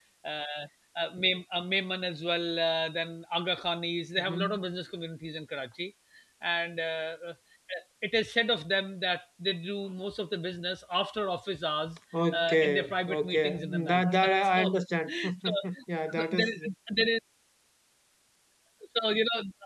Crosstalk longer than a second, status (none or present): present